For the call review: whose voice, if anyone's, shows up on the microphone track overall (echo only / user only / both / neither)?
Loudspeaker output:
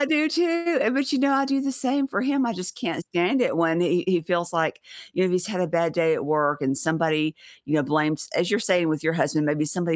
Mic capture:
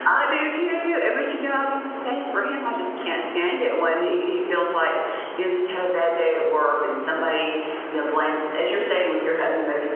echo only